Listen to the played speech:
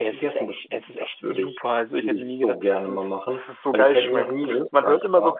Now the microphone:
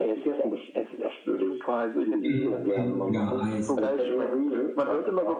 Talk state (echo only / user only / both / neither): both